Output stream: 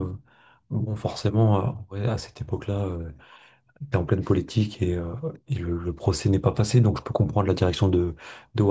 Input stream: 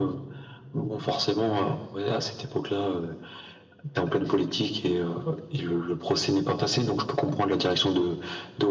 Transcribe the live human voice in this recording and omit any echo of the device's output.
none

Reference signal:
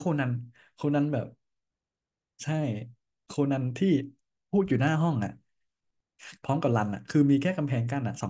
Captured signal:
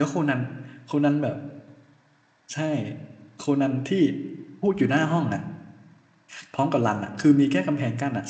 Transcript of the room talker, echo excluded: none

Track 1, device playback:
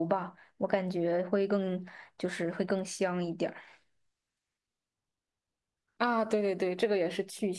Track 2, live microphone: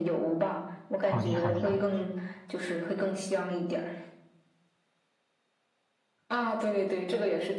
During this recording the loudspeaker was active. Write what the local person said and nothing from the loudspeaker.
好的好的好的。

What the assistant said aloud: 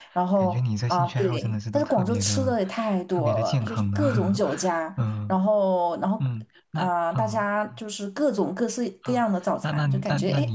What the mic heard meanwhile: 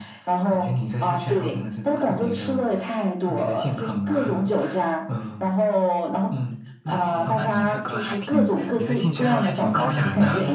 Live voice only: 哦，那你这个还挺，你这兴趣爱好还挺高雅的。

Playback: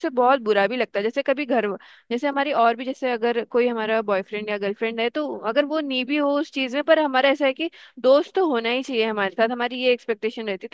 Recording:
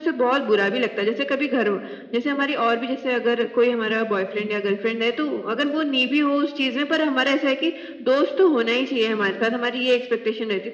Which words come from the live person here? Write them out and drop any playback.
none

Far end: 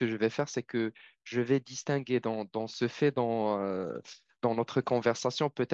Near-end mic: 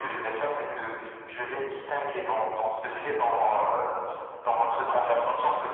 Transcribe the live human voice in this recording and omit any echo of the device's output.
none

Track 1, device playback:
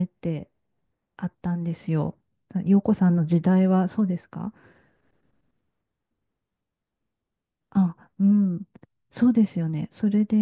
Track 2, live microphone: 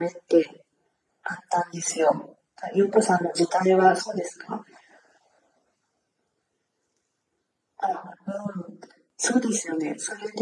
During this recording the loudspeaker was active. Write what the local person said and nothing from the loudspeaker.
none

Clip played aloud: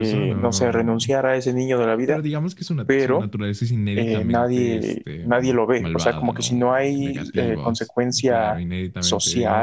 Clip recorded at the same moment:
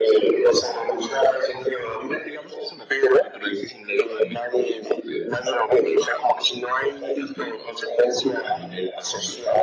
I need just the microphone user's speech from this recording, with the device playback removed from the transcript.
none

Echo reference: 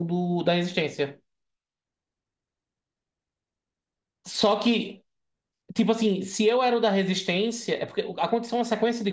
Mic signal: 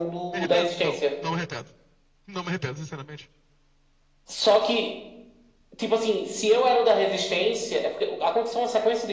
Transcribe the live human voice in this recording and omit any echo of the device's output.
Me arrependo? Não, não me arrependo. Não me arrependo, sinceramente.

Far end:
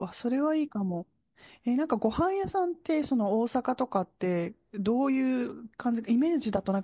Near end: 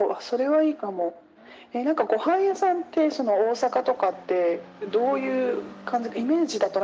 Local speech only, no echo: none

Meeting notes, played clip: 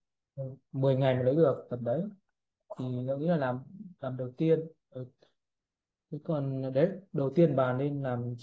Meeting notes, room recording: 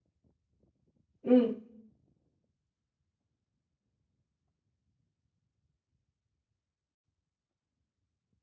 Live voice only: ừ.

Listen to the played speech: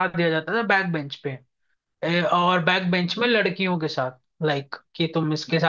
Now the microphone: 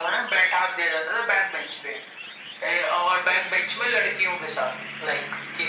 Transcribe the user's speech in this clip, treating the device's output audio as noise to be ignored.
none

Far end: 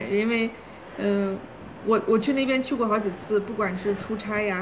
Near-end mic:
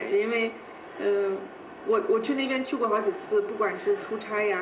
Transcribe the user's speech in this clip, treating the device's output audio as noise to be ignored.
none

